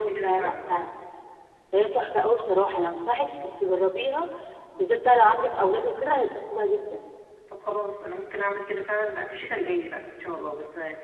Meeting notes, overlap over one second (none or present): none